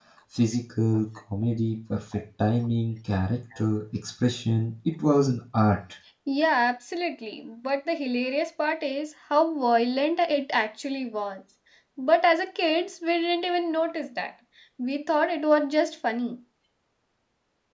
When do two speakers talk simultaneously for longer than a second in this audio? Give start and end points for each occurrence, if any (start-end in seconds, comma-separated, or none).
none